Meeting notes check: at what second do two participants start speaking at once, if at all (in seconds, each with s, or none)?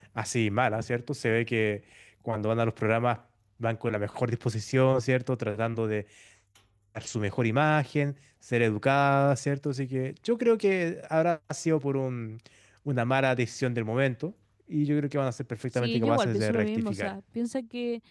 15.7 s